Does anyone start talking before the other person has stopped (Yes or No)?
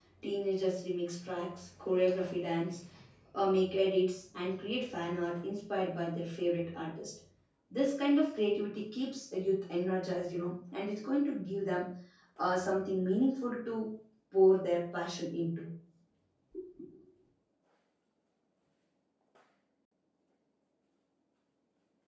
No